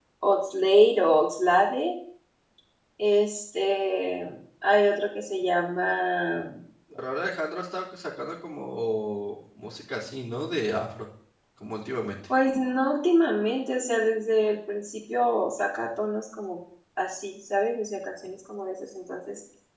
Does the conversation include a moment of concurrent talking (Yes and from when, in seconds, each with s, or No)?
No